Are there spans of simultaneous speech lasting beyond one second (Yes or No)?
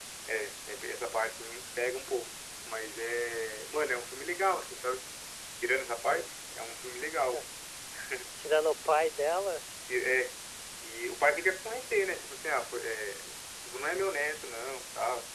No